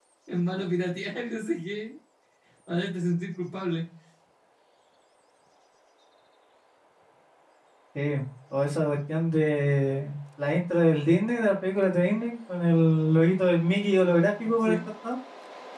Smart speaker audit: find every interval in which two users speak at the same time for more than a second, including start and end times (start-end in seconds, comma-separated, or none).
none